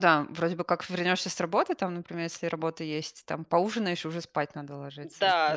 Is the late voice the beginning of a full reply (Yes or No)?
Yes